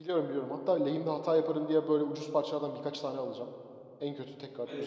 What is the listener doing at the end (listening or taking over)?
taking over